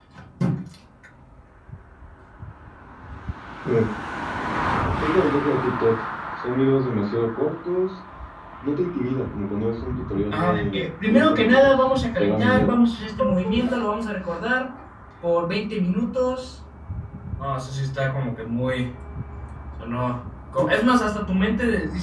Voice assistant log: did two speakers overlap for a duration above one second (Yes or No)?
Yes